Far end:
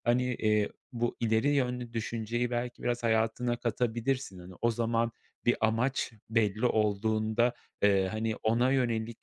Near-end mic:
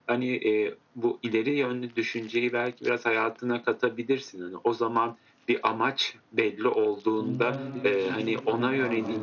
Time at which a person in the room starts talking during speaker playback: 7.2 s

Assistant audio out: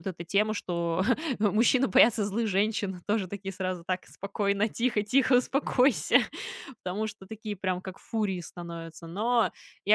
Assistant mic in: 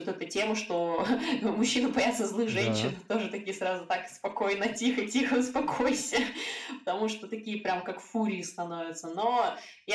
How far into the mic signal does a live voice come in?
2.5 s

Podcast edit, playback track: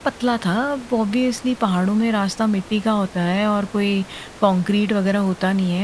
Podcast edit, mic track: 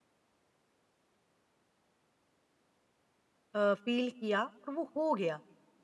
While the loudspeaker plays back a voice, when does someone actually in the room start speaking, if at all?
3.6 s

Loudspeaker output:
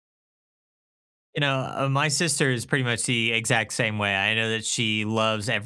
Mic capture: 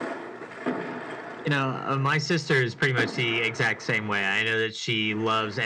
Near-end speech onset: none

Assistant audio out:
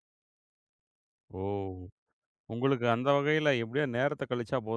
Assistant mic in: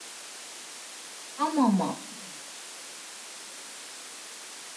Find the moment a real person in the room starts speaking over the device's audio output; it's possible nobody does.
1.4 s

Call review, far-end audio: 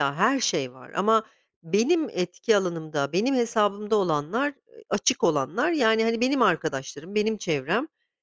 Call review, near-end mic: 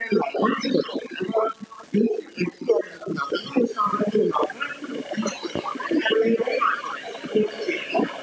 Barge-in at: none

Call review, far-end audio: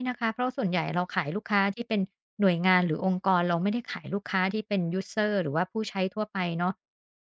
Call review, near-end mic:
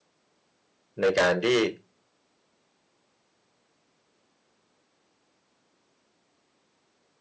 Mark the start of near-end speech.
1.0 s

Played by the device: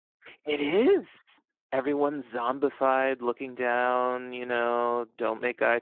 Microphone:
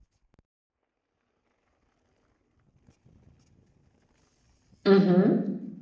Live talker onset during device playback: 4.8 s

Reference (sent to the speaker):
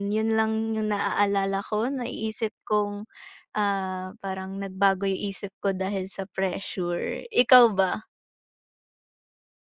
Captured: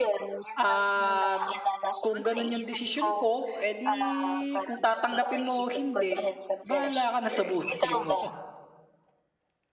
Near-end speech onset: 0.6 s

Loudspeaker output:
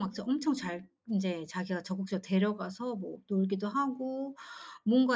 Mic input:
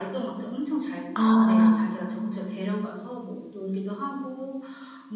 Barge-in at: 1.1 s

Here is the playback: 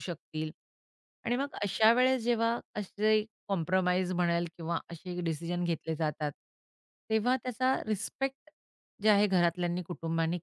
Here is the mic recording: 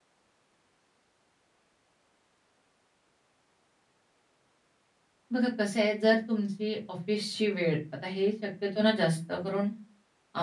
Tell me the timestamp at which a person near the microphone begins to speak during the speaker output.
5.3 s

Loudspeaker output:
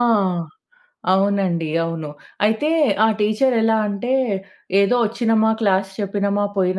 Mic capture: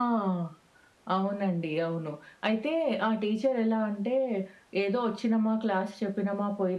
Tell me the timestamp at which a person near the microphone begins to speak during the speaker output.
none

